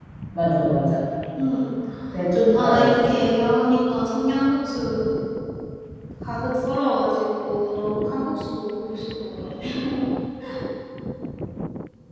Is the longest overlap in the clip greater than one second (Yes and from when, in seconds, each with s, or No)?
No